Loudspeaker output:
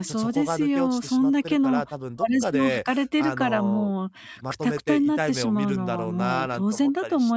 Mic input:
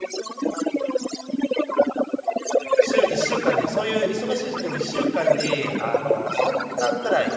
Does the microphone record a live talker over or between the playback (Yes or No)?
Yes